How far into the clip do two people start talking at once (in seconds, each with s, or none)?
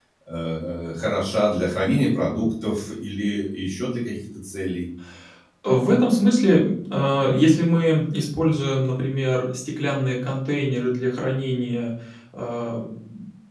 none